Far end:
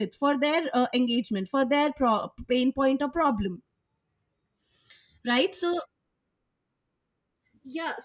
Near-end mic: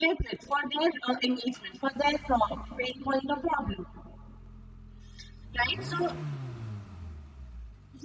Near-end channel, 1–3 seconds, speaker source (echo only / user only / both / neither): echo only